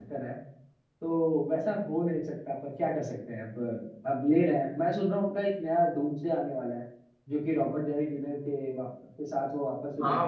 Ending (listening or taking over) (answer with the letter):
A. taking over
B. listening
A